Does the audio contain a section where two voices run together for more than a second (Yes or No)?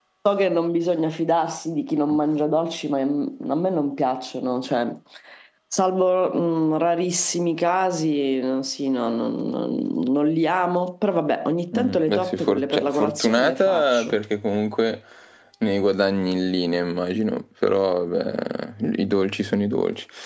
Yes